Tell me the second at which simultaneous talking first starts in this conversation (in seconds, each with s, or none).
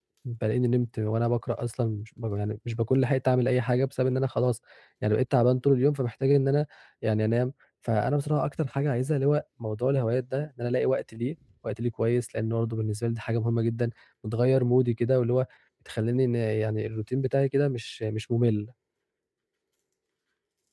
none